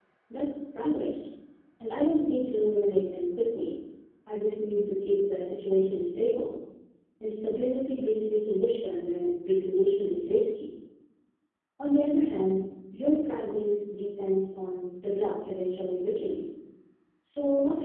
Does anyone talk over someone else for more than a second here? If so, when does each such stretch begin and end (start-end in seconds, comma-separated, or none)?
none